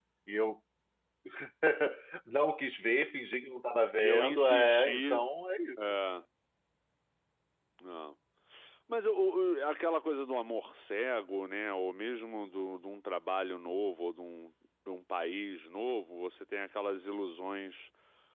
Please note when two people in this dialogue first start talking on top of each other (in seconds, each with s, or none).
4.0 s